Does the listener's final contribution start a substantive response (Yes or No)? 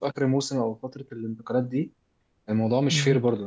No